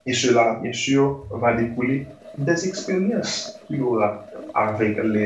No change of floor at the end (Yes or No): Yes